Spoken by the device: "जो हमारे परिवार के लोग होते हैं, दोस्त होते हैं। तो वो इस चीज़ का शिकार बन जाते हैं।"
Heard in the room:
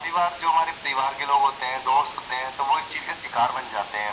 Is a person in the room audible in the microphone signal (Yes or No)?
No